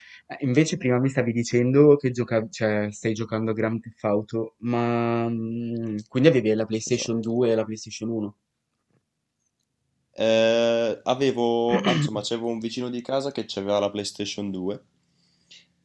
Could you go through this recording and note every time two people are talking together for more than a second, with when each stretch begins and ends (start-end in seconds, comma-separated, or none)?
none